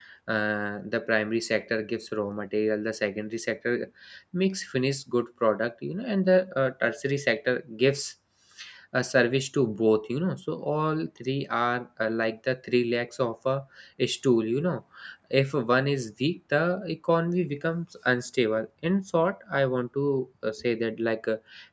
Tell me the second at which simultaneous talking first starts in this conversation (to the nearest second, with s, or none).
none